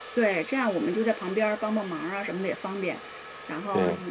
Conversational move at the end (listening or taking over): listening